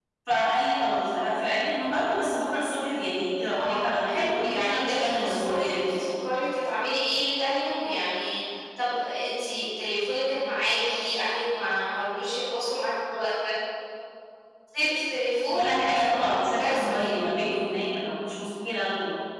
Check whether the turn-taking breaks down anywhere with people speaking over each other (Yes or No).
Yes